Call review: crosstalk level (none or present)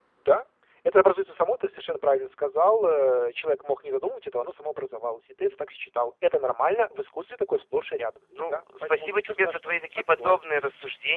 present